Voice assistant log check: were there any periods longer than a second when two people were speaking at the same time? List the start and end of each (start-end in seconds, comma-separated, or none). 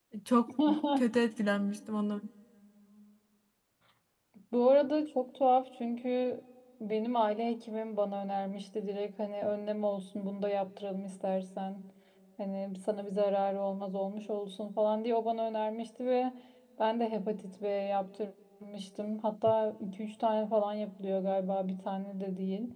none